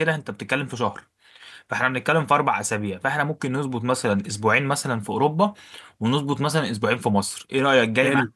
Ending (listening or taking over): taking over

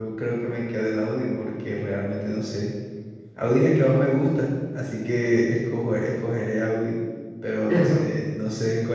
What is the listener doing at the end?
listening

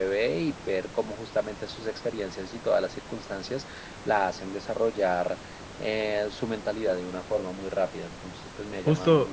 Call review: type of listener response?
taking over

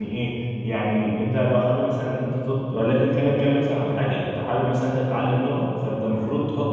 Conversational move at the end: listening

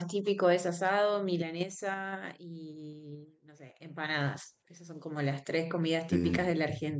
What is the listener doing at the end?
listening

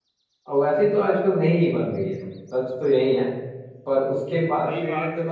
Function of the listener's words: taking over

